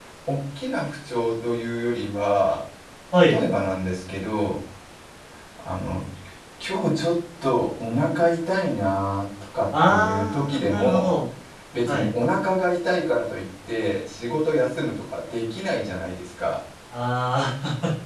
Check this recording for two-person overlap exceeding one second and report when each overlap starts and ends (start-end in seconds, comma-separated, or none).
9.9-11.1